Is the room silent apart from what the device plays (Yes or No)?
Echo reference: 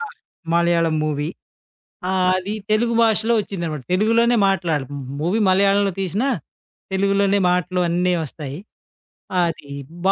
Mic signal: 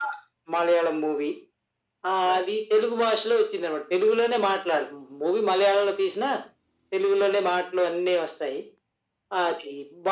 Yes